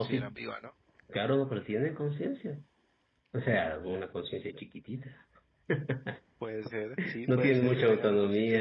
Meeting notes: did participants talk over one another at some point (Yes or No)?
Yes